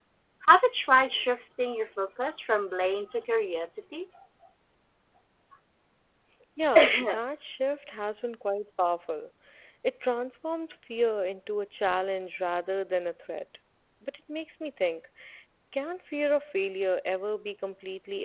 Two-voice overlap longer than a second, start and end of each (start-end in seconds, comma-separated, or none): none